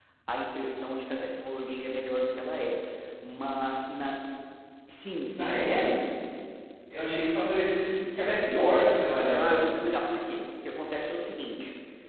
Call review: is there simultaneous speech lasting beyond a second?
No

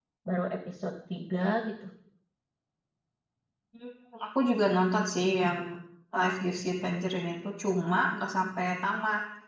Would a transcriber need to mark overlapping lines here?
No

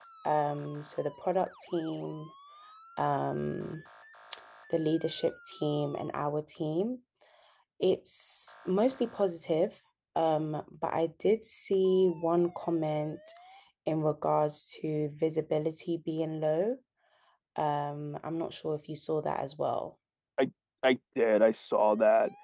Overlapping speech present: No

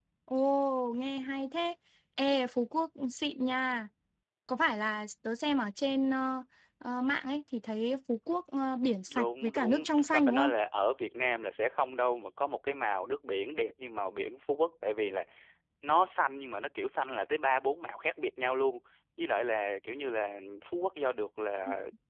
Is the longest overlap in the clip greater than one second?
Yes, from 9.1 s

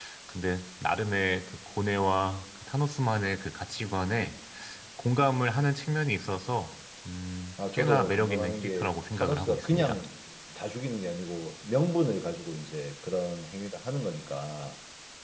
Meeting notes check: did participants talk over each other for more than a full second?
Yes, from 7.6 s

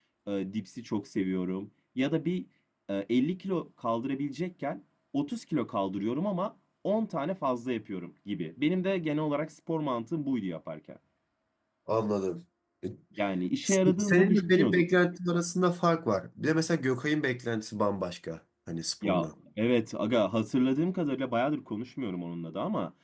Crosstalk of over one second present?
Yes, from 13.6 s

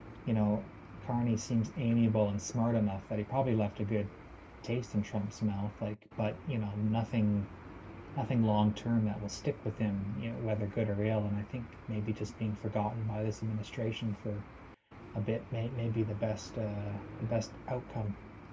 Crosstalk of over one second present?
No

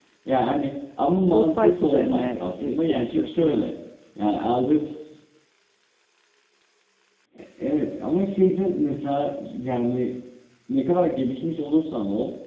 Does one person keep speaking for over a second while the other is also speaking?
Yes, from 1.2 s

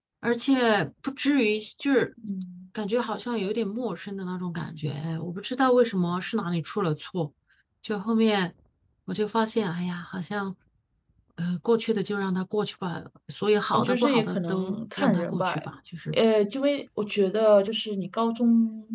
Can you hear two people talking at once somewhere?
Yes, from 13.7 s

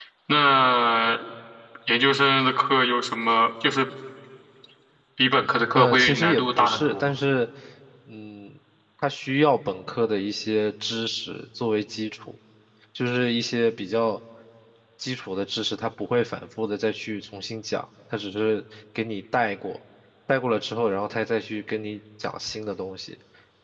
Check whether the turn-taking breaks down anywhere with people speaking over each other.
Yes, from 5.7 s

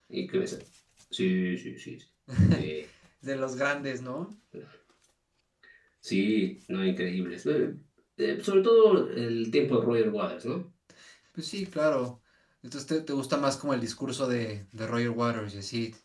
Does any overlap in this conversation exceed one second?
No

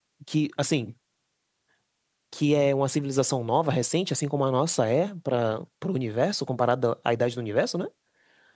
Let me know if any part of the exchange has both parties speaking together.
No

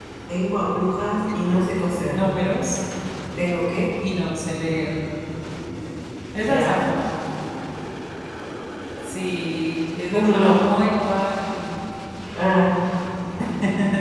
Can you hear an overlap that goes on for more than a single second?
No

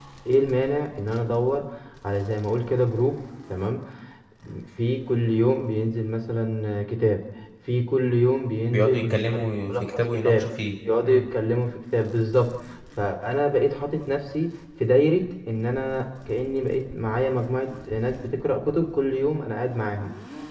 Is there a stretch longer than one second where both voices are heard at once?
Yes, from 8.7 s

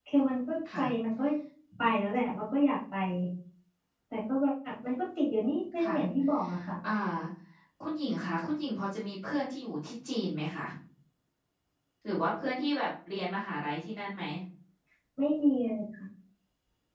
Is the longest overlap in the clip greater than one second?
No

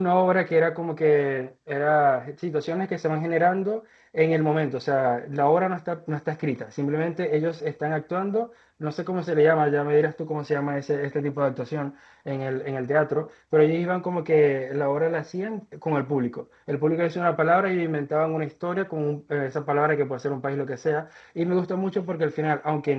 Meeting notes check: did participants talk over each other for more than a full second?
No

